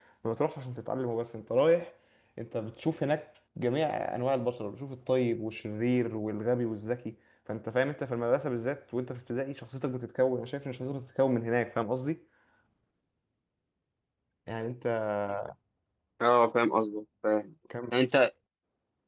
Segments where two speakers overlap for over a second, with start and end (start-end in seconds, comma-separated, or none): none